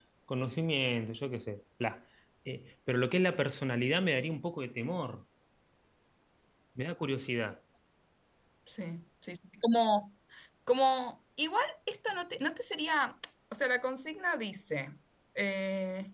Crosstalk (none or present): none